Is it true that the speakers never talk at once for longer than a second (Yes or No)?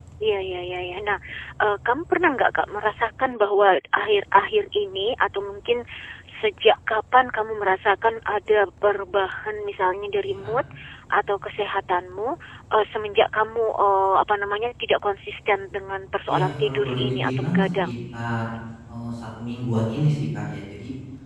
No